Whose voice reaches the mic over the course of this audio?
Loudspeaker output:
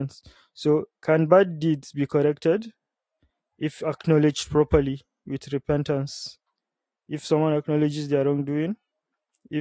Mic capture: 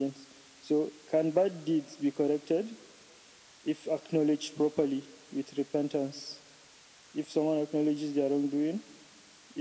echo only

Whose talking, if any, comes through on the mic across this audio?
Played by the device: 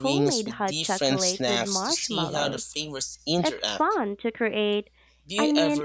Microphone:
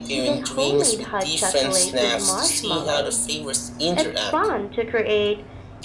echo only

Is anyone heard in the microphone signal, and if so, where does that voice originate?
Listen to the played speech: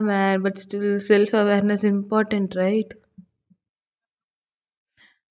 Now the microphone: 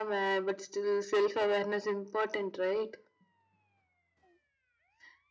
echo only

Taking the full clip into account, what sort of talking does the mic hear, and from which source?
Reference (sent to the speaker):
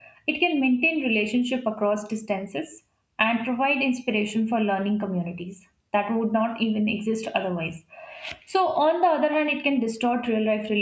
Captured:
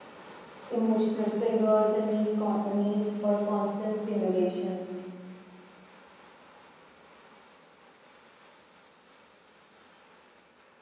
user only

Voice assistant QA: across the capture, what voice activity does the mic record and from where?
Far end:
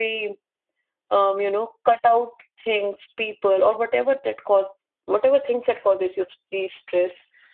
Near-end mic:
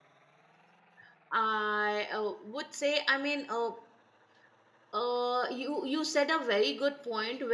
user only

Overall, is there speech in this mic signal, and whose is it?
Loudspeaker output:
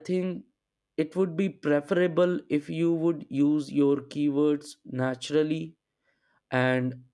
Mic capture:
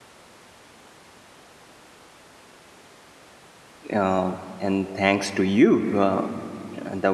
user only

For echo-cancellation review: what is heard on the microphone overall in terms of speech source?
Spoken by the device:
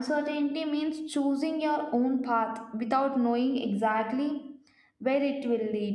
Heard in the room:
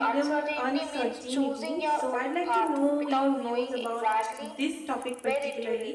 both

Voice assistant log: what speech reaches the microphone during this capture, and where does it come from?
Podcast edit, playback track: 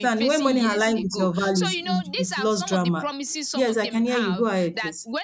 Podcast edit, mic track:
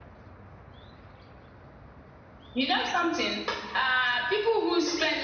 user only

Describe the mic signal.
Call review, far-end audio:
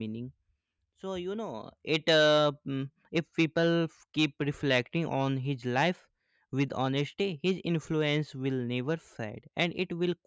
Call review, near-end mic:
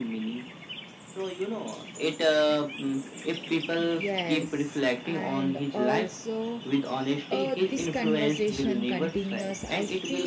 both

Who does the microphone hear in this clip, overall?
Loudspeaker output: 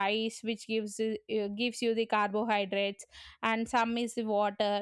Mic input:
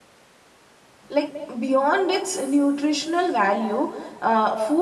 user only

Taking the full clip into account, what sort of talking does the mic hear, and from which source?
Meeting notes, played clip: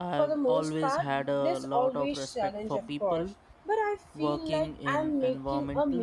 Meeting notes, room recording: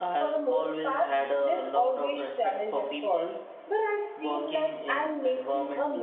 echo only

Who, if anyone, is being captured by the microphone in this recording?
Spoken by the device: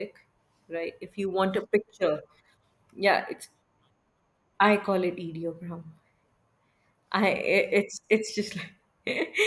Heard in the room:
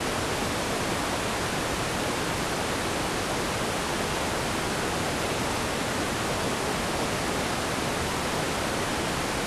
neither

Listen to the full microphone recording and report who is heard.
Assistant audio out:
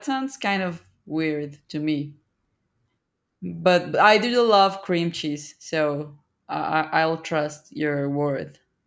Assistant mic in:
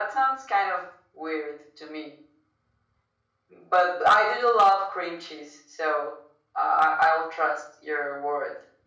echo only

